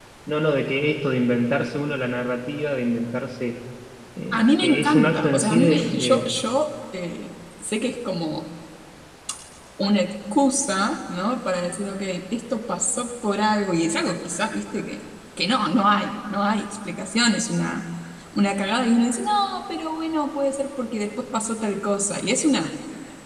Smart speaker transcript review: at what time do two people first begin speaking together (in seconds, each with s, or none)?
4.4 s